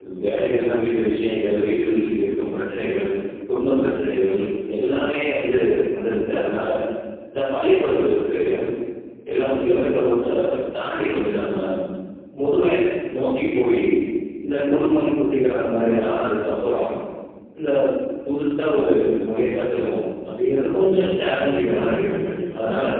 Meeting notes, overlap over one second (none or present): present